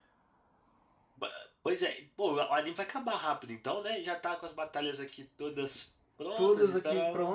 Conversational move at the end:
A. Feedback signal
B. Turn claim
B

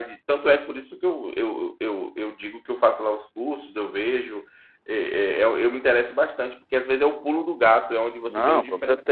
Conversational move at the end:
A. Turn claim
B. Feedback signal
A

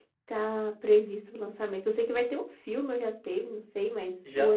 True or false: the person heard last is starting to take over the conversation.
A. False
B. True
B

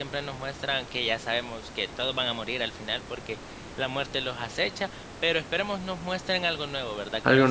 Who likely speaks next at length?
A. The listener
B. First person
B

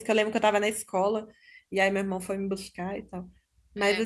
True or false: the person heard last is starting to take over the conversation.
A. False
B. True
A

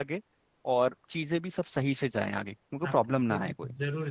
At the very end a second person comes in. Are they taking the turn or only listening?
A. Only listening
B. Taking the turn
B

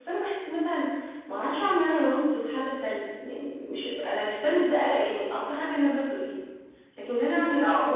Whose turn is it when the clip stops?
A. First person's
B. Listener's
A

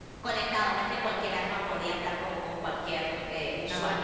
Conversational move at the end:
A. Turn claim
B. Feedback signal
A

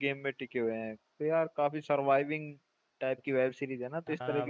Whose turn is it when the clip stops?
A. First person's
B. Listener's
B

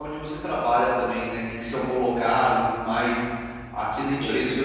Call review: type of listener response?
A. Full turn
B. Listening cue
B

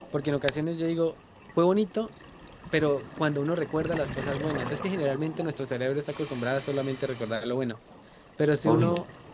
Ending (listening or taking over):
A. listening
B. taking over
A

